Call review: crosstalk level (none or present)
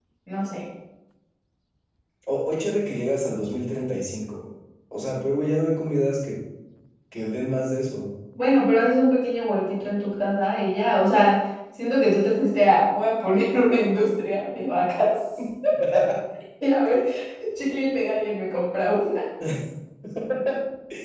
none